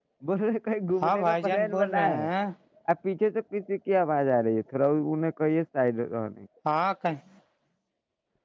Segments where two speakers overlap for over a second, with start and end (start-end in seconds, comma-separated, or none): 1.0-2.2